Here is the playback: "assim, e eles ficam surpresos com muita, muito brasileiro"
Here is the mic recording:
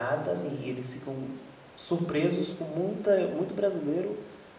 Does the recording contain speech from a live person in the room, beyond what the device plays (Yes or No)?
No